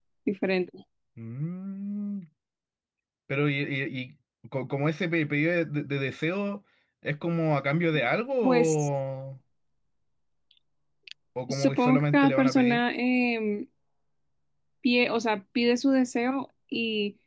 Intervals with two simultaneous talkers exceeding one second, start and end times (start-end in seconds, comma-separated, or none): 11.5-12.8